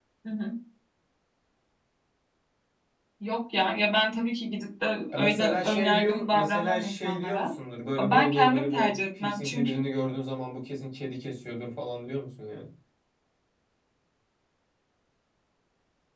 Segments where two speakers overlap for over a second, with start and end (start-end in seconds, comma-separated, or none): 5.1-7.5, 8.0-9.8